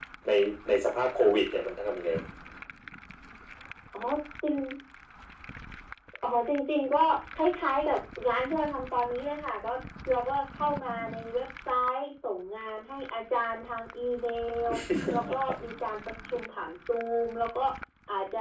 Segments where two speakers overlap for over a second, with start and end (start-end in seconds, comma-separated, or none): none